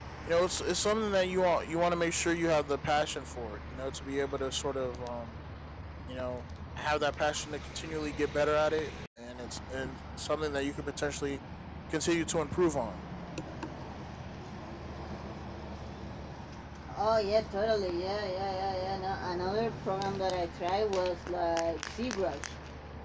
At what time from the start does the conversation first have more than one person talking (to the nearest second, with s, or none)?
none